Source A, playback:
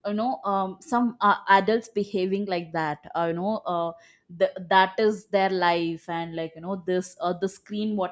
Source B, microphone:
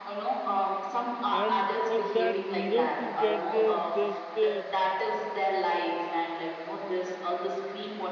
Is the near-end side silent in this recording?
No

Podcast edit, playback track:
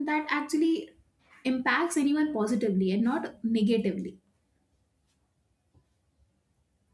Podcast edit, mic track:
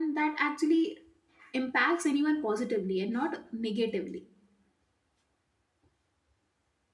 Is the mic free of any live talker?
Yes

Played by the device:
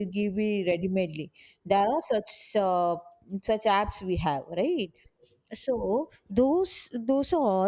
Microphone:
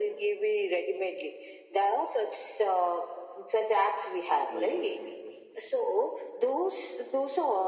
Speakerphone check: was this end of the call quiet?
No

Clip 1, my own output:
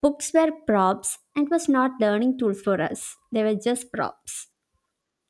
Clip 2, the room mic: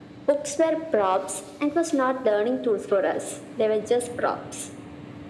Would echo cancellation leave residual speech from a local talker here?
No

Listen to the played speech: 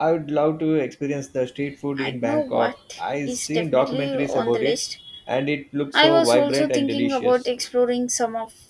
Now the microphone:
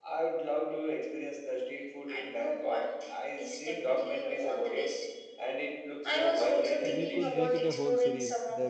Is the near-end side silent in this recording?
No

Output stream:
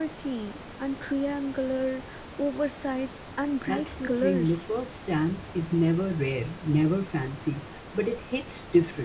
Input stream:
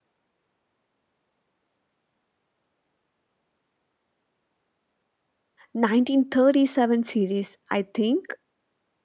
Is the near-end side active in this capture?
Yes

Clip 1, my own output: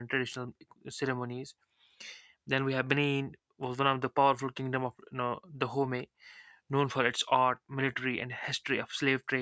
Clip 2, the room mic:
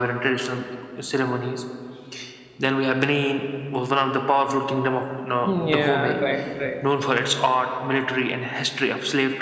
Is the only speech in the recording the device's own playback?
No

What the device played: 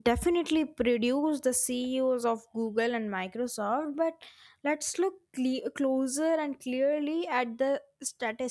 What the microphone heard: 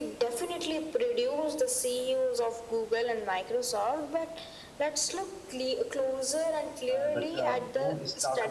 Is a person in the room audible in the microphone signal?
Yes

